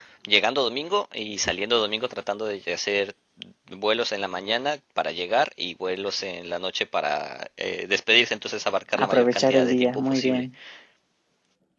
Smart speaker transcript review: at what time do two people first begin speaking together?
8.9 s

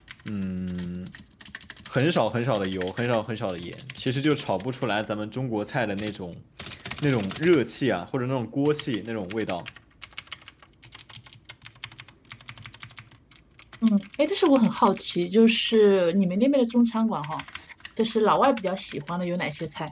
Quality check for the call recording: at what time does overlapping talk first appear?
none

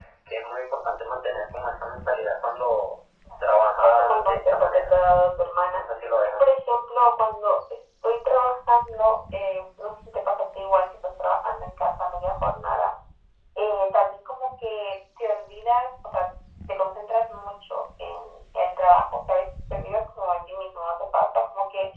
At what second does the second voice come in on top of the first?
3.4 s

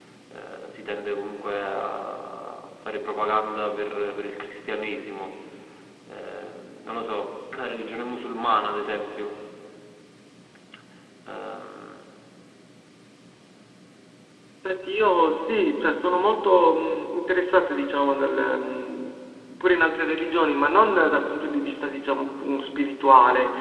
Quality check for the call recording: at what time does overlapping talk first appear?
none

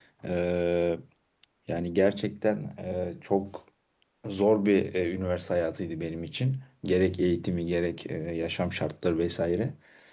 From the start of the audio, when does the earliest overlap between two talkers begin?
none

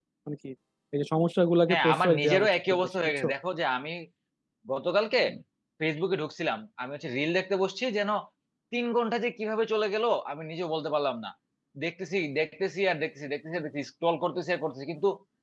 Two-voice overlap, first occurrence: 1.7 s

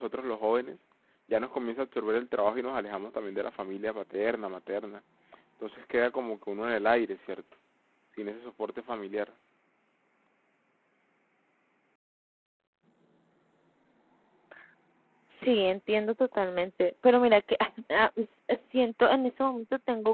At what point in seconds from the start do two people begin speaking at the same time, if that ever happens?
none

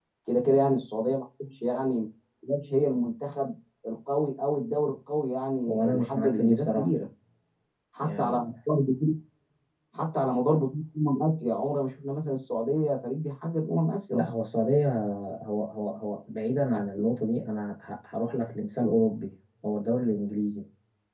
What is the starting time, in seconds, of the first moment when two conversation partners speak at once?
5.7 s

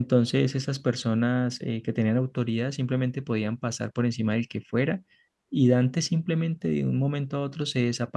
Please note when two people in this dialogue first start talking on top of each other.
none

